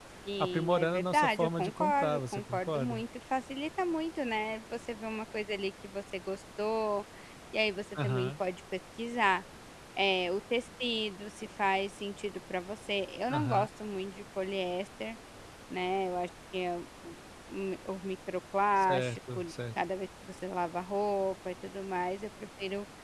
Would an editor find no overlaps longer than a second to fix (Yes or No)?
No